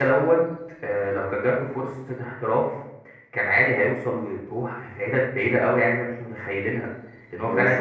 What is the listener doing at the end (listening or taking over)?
taking over